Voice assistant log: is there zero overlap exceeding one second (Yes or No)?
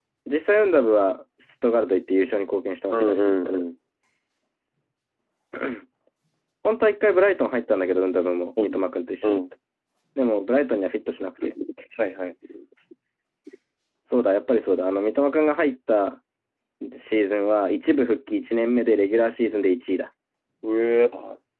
Yes